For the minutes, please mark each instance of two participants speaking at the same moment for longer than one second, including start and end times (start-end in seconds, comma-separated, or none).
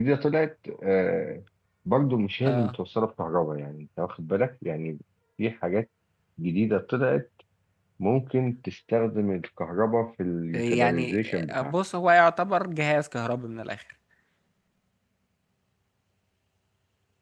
10.5-11.7